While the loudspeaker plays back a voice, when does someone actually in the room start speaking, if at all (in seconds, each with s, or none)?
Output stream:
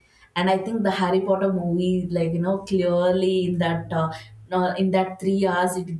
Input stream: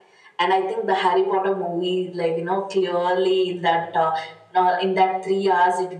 none